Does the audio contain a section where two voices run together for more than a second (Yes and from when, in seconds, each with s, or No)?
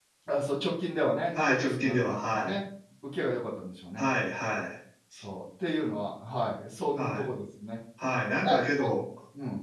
Yes, from 1.3 s